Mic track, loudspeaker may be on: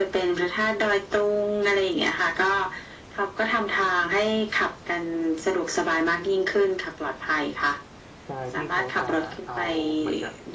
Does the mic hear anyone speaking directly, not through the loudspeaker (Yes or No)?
Yes